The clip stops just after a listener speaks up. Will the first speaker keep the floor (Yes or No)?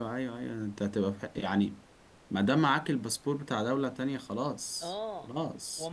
No